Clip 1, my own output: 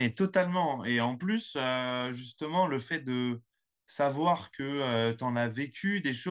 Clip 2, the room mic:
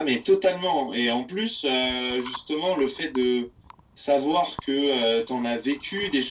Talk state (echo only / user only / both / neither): echo only